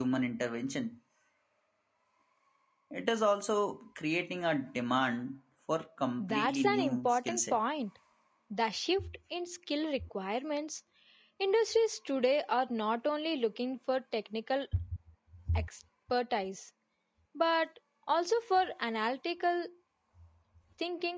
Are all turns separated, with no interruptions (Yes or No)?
No